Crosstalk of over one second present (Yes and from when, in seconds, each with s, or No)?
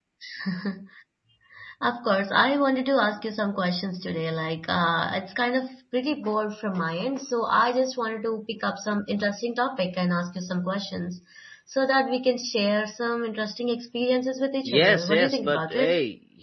Yes, from 14.6 s